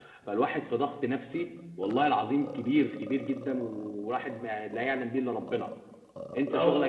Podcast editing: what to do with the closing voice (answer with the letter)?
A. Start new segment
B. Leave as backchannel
B